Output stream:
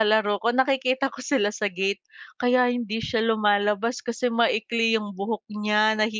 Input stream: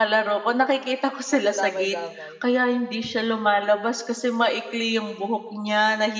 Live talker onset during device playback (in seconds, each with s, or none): 1.3 s